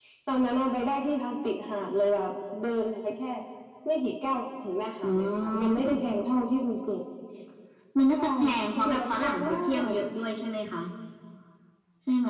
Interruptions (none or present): present